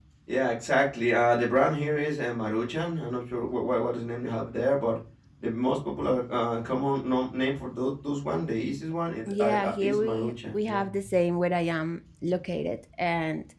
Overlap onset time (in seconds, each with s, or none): 9.3 s